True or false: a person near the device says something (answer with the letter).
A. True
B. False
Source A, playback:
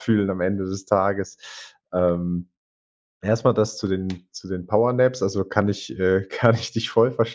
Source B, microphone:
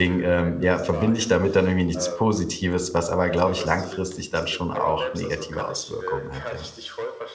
A